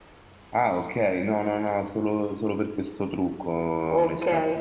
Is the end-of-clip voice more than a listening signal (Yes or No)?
Yes